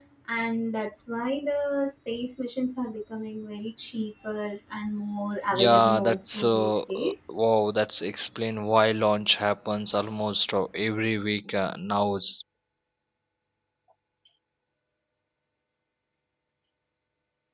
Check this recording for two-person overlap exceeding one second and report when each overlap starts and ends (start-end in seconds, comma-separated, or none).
5.5-7.1